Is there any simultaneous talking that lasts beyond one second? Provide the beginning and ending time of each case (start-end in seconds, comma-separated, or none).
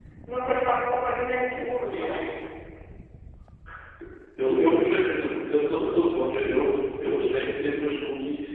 none